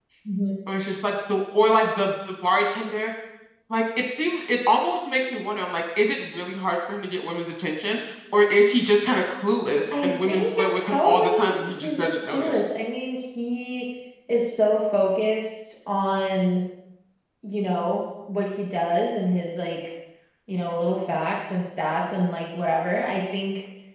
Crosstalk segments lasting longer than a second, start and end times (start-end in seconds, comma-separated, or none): 9.9-12.6